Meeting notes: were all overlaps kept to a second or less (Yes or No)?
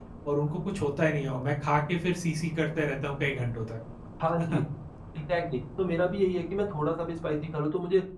Yes